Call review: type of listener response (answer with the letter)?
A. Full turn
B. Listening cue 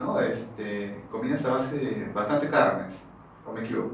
A